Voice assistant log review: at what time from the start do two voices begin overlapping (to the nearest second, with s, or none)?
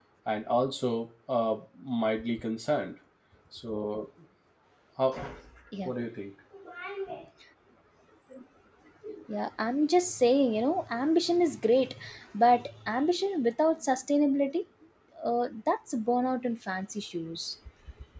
none